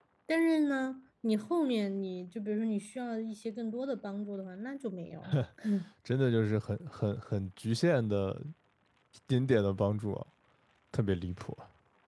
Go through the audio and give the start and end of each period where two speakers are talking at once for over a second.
none

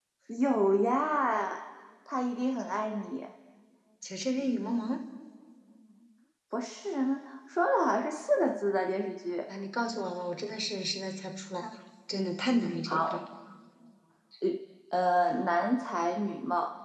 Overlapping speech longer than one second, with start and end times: none

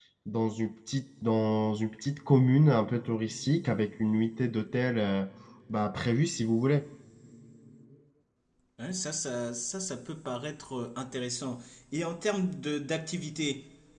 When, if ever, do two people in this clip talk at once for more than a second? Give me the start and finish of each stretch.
none

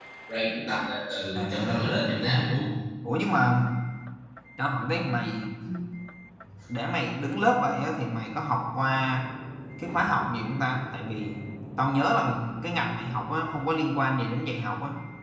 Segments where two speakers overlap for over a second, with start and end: 1.3-2.6

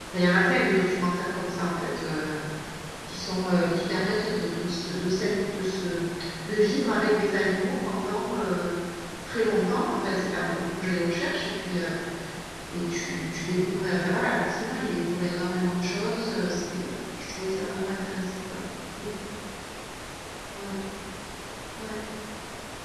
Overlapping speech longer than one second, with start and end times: none

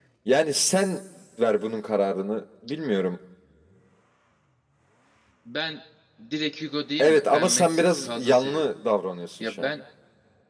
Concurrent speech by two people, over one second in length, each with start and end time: 7.0-8.7

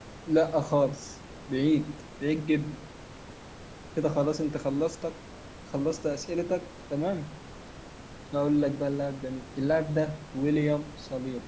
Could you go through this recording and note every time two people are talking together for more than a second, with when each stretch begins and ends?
none

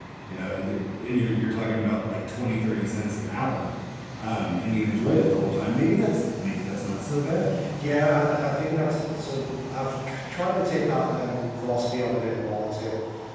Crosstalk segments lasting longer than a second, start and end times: none

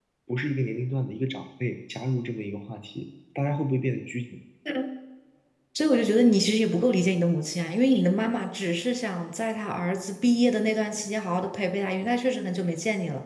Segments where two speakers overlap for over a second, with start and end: none

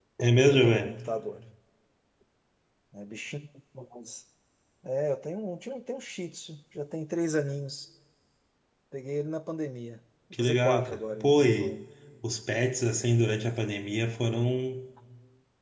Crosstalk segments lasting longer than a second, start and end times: 10.3-11.8

